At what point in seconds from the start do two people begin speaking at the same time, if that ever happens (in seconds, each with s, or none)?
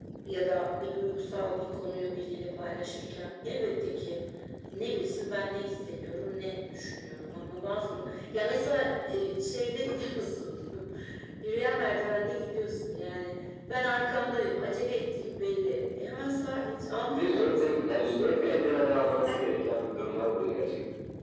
17.1 s